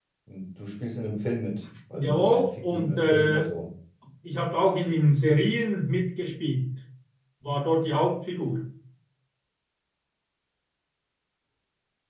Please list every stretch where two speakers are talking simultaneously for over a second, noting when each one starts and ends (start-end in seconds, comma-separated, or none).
1.9-3.5